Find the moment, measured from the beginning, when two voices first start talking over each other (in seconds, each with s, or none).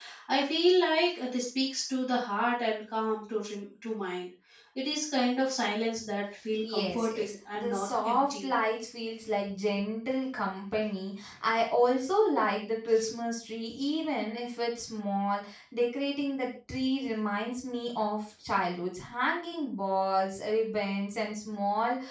6.6 s